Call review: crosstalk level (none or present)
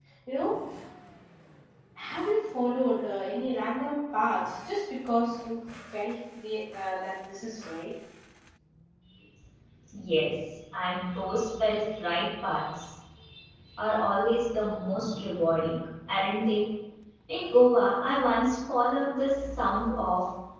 none